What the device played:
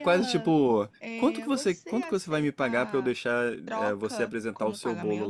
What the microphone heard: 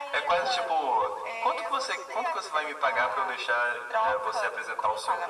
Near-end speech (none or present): none